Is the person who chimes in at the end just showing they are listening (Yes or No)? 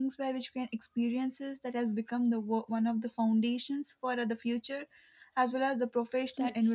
No